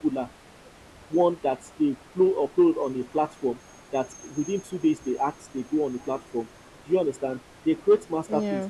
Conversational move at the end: listening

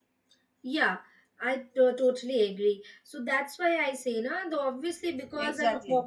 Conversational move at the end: listening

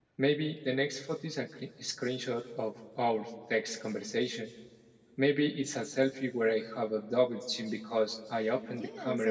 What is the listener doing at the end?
taking over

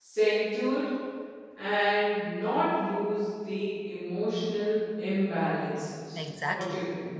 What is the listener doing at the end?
taking over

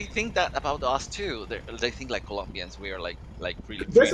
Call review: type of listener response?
taking over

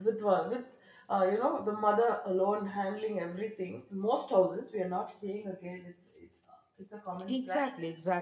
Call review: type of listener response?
taking over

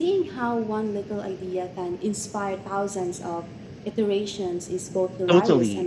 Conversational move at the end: taking over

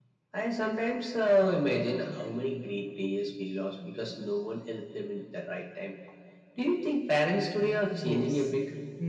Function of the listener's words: taking over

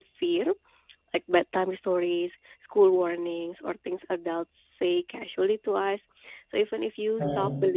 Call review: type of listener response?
listening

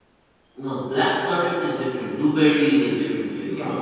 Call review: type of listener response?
taking over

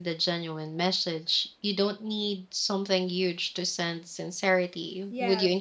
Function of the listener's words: taking over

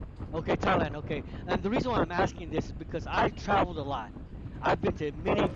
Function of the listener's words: listening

